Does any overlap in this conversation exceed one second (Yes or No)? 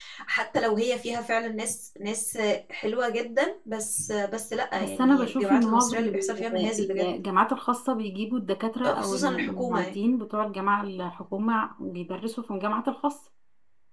Yes